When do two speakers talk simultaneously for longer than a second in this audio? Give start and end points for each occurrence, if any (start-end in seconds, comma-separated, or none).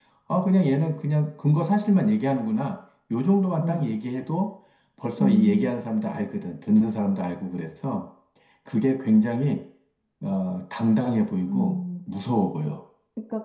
none